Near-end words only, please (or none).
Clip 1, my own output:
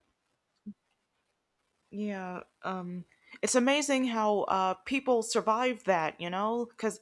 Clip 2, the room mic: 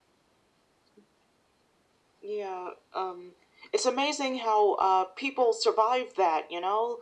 none